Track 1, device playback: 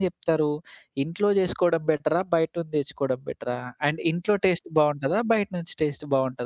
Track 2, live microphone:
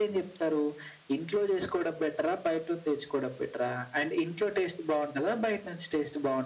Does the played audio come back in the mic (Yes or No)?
Yes